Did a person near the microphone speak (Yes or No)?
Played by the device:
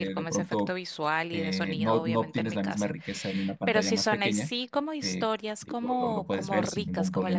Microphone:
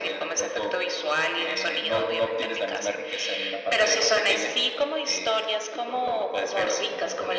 No